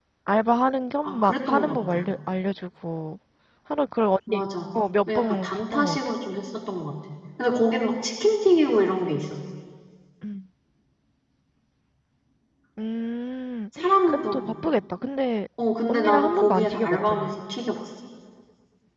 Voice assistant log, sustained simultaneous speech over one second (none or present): present